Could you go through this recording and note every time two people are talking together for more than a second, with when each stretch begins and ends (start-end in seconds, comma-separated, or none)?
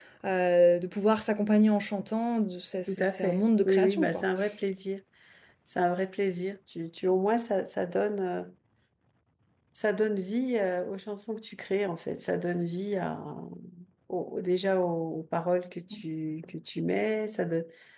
2.9-4.2